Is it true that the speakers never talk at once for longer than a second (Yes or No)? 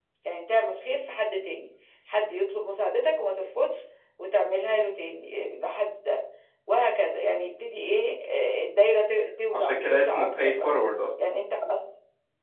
No